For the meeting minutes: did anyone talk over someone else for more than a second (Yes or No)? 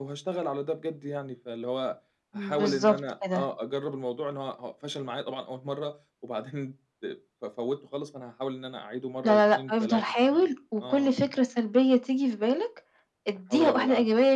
Yes